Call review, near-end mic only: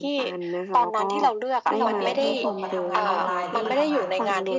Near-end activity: present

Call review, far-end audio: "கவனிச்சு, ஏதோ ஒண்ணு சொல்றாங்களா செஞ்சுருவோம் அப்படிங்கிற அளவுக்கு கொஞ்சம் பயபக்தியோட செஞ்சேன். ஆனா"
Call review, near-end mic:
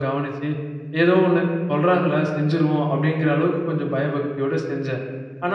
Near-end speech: none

